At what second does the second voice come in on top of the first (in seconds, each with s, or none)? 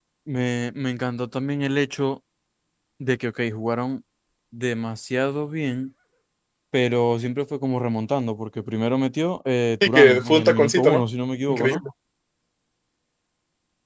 9.8 s